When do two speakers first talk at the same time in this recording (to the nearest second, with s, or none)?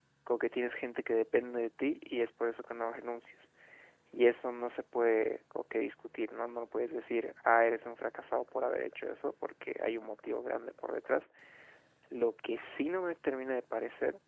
none